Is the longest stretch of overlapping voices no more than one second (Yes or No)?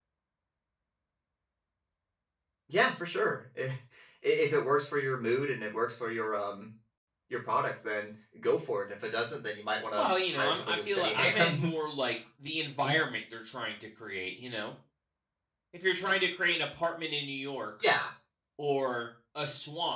No